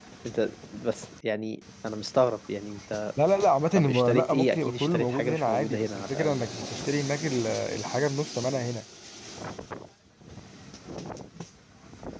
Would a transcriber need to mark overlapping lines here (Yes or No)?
Yes